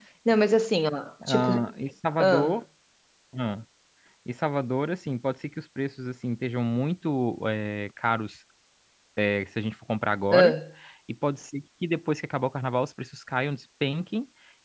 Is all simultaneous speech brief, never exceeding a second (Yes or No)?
Yes